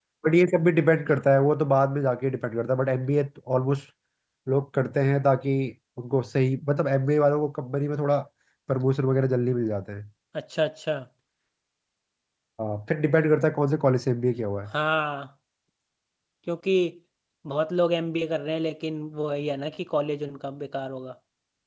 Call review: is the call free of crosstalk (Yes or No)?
Yes